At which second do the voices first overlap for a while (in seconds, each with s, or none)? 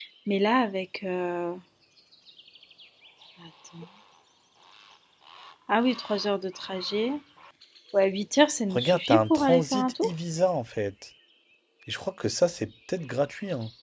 8.7 s